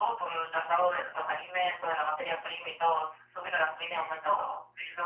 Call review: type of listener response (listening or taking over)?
taking over